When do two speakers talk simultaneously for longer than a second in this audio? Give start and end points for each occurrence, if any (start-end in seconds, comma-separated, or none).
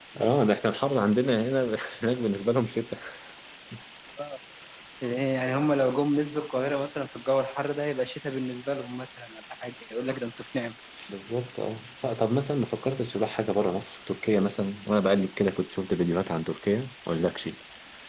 none